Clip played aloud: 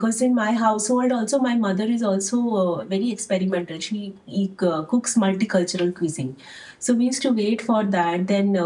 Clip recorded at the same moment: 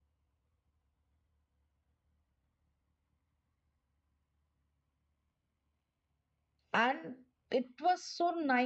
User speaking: Yes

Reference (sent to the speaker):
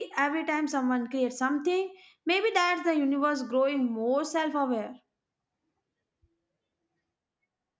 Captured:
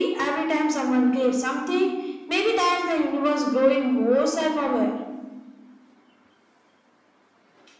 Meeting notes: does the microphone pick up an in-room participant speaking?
No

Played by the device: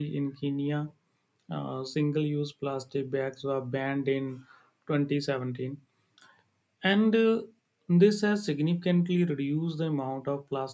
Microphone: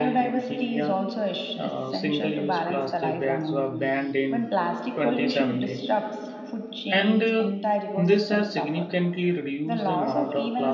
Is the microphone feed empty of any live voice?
No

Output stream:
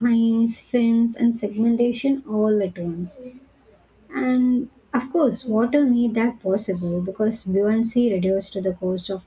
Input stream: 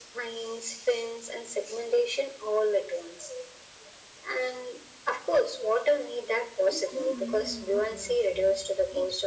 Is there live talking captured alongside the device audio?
Yes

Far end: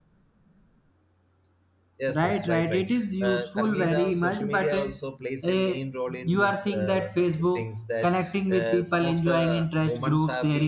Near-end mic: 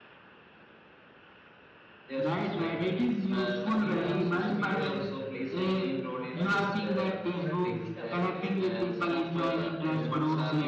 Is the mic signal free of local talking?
No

